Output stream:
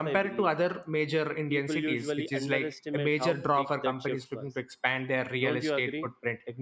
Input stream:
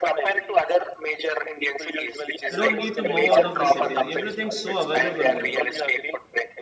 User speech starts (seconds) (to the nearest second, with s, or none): 3 s